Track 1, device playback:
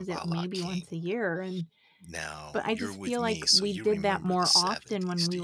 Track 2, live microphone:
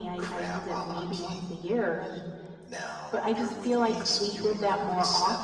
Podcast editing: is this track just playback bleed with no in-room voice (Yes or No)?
Yes